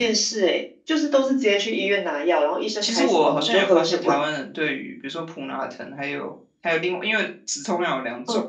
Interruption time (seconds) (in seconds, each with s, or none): 2.8 s